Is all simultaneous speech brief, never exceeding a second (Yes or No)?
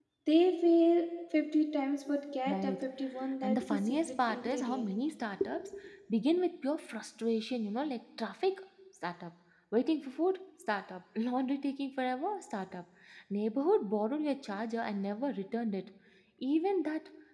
No